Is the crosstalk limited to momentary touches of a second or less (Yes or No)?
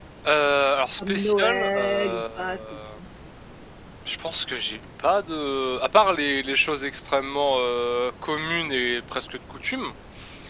No